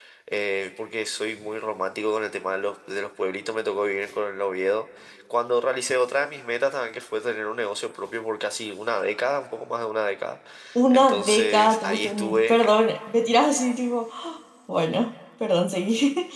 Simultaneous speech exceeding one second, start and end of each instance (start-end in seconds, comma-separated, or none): 10.9-12.7